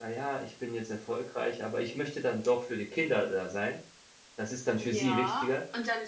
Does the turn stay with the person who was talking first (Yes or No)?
No